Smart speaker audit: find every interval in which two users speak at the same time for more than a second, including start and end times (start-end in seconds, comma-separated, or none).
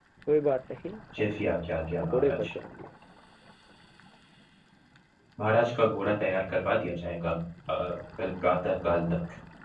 none